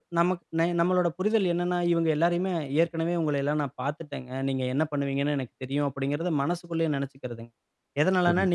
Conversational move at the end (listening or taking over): listening